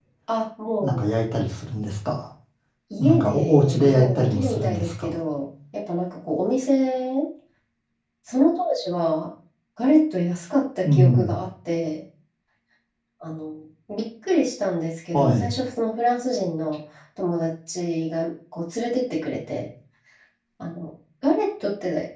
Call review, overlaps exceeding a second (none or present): present